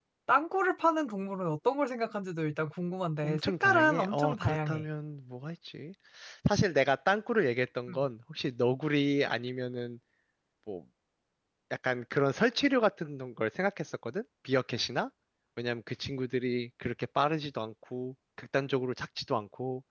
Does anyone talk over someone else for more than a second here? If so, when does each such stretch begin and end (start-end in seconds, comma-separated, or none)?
3.2-4.8